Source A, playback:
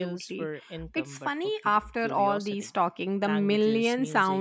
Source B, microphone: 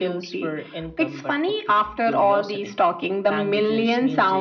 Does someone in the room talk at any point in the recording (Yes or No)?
No